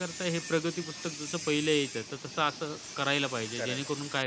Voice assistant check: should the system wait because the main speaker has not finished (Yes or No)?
Yes